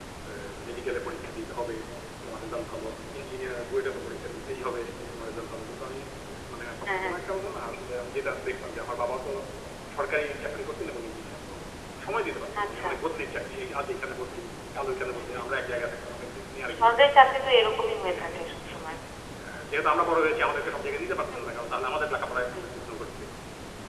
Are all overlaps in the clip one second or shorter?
Yes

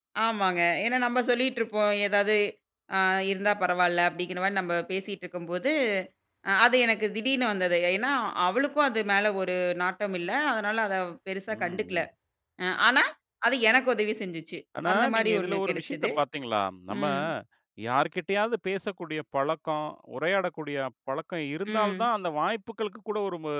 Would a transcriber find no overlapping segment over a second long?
No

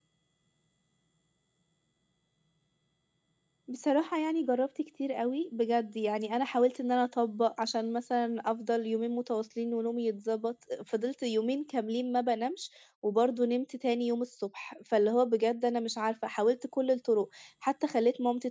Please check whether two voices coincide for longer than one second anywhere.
No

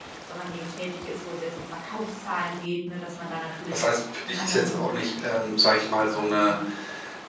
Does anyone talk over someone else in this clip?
Yes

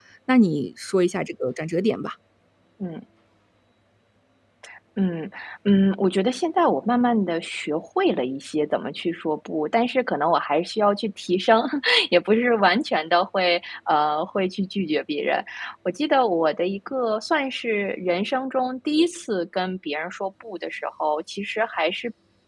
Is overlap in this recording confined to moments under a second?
Yes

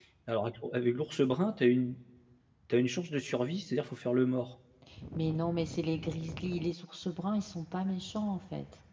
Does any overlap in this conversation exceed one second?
No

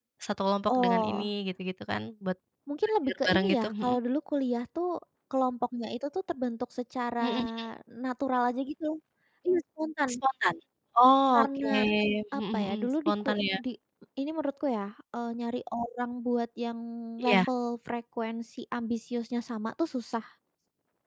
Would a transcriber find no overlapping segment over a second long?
No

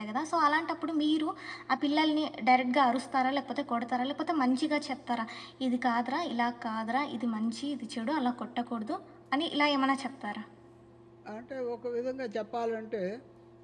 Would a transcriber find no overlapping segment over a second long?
Yes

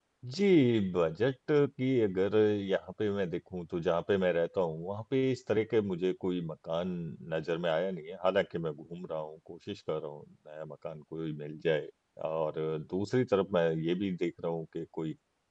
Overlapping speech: No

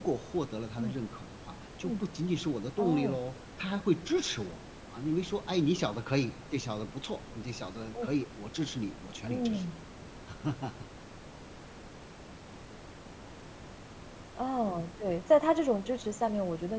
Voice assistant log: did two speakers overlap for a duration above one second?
No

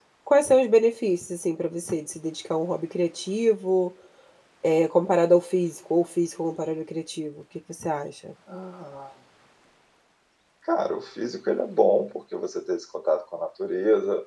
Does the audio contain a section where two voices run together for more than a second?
No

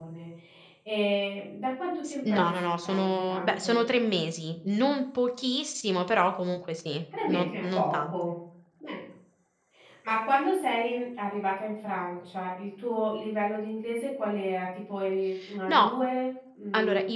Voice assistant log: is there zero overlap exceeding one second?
No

